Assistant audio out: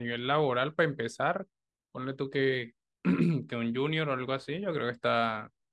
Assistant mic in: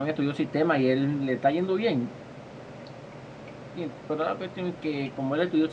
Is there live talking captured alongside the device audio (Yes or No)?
Yes